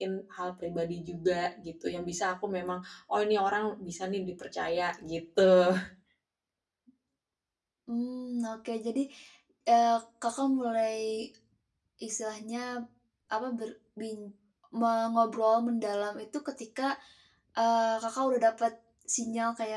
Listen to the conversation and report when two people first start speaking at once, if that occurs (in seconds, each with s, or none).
none